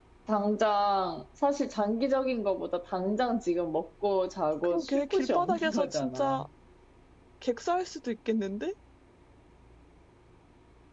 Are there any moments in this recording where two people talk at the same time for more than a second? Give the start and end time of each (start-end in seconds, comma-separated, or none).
4.6-6.4